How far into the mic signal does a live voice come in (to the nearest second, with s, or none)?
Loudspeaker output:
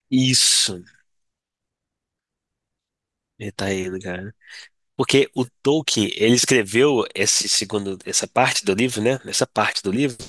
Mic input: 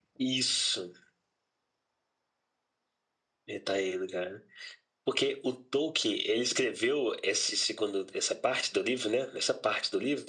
none